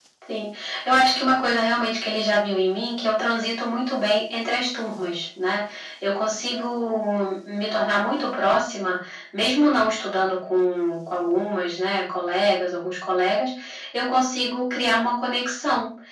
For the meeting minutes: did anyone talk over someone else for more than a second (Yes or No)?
No